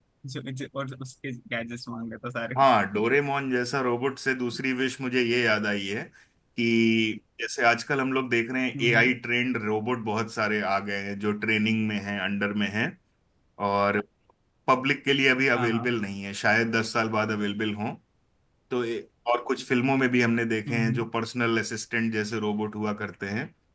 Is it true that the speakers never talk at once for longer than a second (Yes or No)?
Yes